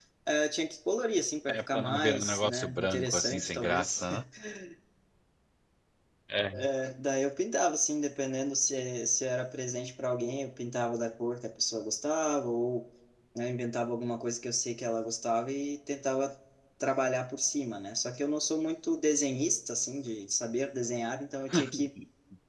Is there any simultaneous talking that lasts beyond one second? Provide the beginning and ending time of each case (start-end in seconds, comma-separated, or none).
1.5-4.1